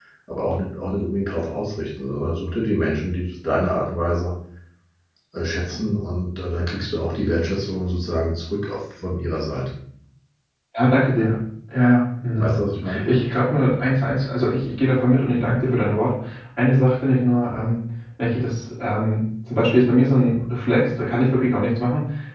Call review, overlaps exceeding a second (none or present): none